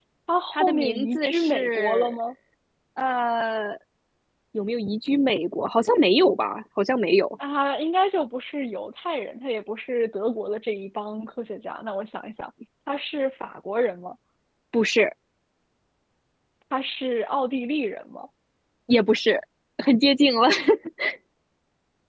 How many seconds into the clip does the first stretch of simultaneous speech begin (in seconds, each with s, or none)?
0.5 s